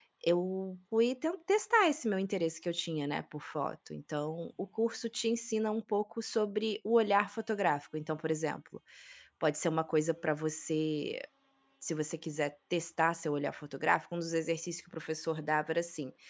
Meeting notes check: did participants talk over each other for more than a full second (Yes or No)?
No